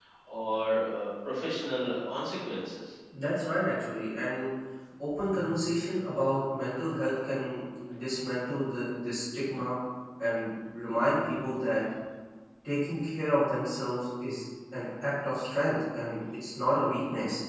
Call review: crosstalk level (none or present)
none